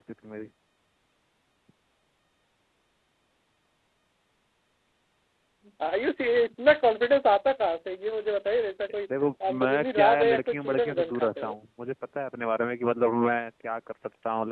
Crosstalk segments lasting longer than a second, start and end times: 9.5-11.6

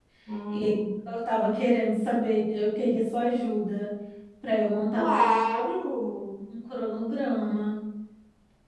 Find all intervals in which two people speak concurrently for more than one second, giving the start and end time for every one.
none

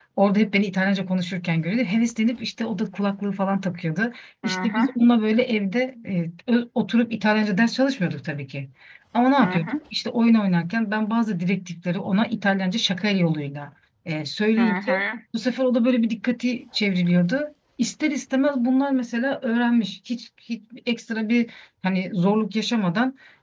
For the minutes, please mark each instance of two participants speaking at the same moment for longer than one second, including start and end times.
none

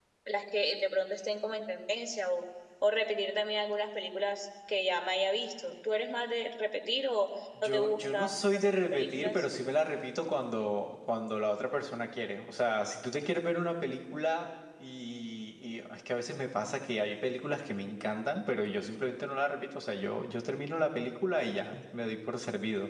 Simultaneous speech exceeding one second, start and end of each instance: 7.6-9.4

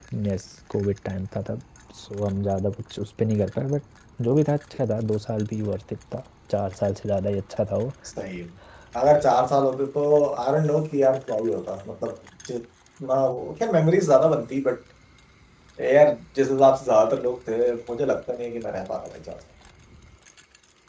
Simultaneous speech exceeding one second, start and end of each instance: none

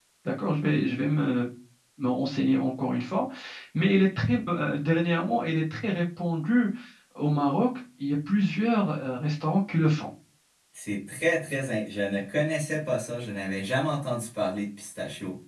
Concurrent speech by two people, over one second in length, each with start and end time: none

